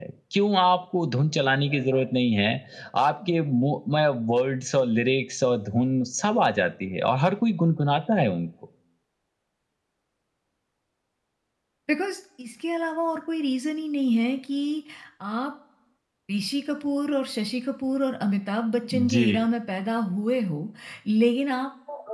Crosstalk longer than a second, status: none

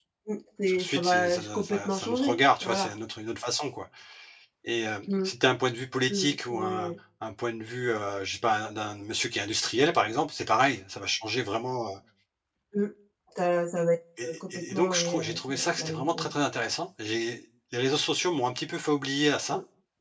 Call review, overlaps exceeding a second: present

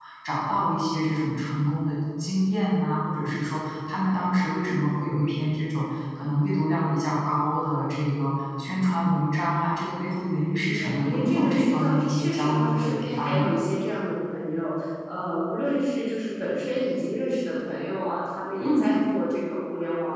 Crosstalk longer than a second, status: present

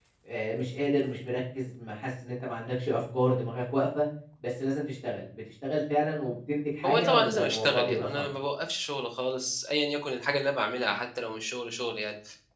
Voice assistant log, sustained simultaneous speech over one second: present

